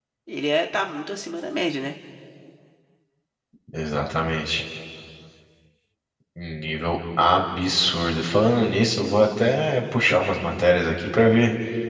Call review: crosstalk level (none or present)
none